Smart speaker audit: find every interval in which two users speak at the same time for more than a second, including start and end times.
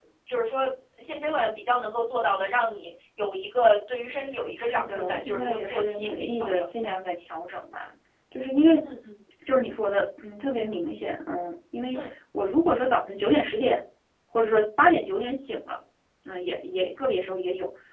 4.6-6.9

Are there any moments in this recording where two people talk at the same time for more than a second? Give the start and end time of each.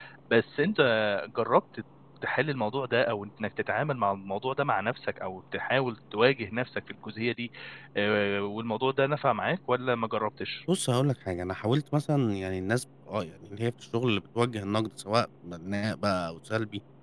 none

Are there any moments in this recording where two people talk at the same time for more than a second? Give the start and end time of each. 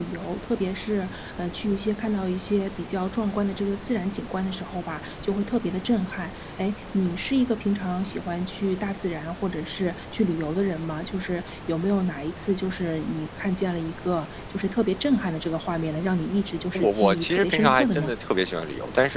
16.7-18.1

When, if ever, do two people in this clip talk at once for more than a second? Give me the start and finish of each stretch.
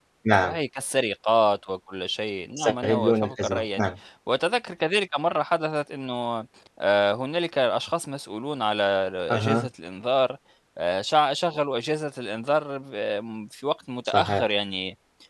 2.6-3.9

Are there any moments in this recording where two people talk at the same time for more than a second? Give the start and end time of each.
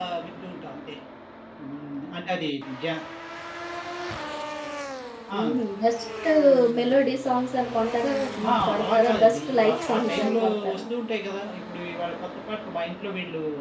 8.5-10.8

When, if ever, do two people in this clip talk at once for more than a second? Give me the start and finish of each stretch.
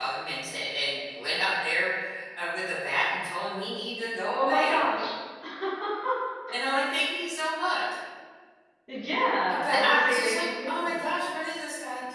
9.5-11.0

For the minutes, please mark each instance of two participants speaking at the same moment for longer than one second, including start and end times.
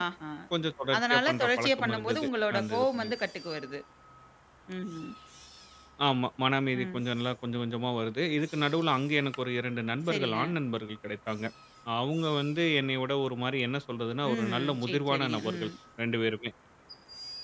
1.0-3.1, 14.3-15.7

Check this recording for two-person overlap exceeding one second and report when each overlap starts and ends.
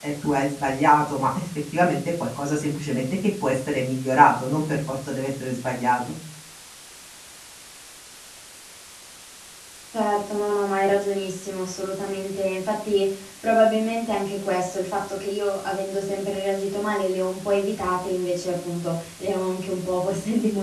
none

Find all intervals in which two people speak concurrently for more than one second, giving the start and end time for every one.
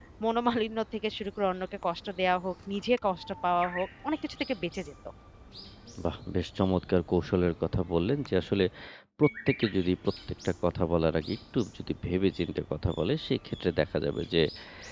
none

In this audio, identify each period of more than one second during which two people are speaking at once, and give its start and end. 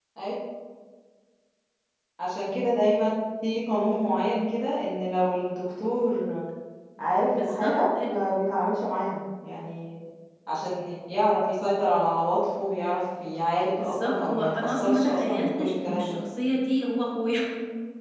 13.8-16.2

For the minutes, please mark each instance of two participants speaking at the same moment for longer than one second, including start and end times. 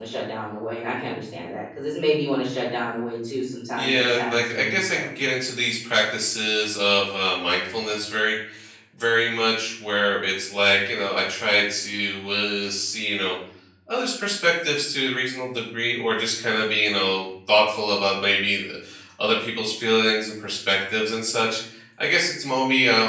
3.8-5.0

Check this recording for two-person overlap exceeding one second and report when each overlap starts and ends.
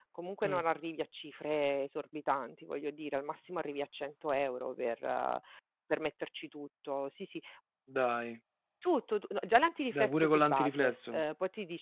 9.9-11.2

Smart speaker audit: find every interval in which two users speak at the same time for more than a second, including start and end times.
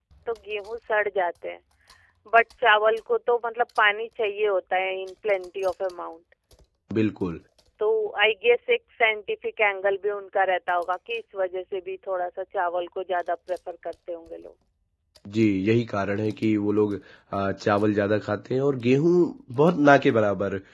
none

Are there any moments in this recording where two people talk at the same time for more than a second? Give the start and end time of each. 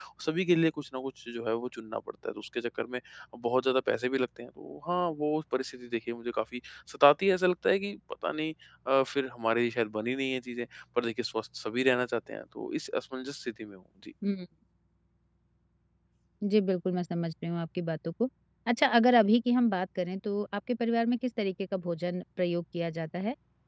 none

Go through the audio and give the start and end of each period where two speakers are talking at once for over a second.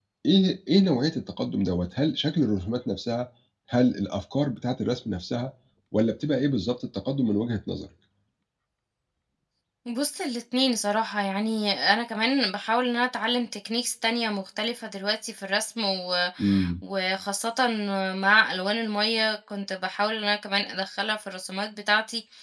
none

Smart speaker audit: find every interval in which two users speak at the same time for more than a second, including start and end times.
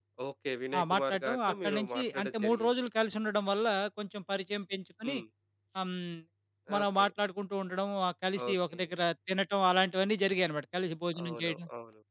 0.8-2.7

